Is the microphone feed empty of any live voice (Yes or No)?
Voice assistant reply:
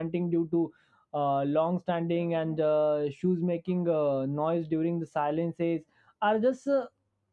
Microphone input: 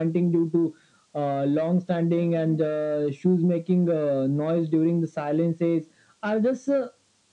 Yes